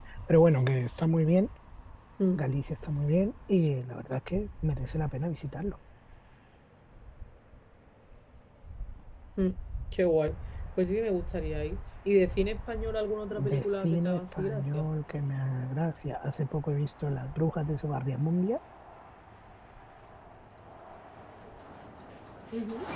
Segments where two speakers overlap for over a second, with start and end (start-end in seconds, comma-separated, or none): 13.5-14.8